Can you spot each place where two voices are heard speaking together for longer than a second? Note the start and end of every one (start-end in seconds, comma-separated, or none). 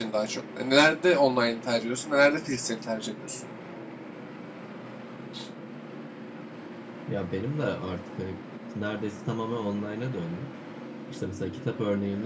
none